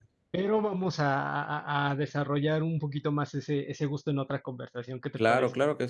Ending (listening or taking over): taking over